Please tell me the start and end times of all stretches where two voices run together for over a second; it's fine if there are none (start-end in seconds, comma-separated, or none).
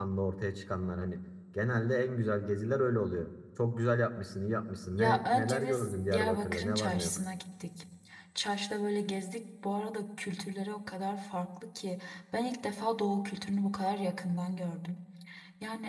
4.9-7.2